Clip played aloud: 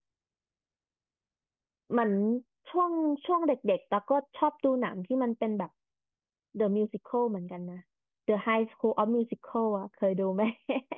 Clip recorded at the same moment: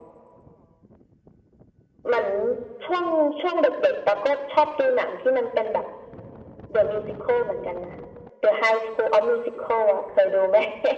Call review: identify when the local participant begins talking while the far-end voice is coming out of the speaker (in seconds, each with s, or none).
none